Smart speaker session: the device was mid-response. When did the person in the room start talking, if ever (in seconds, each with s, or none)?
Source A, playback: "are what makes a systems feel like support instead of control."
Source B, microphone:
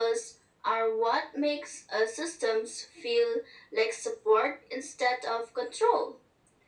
none